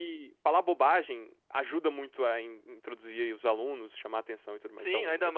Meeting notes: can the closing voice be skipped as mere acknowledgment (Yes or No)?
No